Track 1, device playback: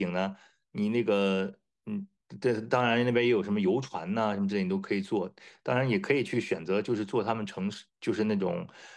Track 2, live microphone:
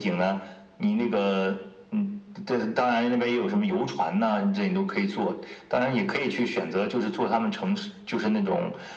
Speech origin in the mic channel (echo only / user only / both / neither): echo only